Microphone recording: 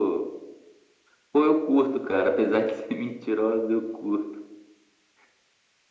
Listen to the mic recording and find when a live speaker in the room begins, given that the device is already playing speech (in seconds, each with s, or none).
none